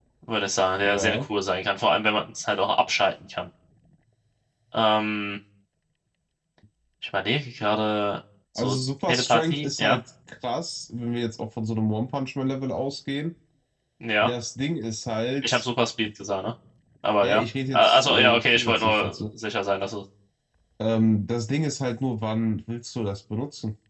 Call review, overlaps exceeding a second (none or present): present